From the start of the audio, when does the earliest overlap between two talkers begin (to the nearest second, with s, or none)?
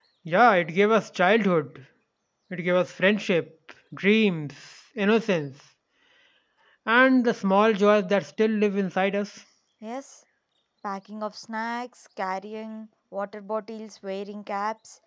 none